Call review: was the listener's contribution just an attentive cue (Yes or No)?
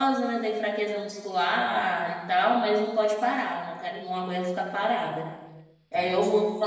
Yes